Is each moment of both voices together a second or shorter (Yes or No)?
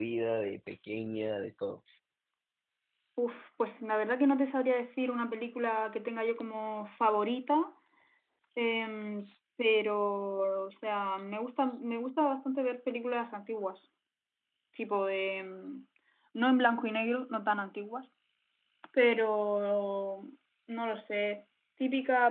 Yes